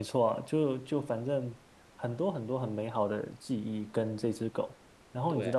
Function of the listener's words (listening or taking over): listening